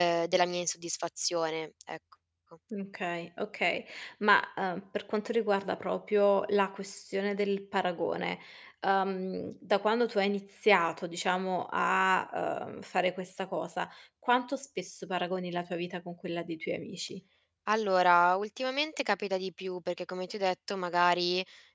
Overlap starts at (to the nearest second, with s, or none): none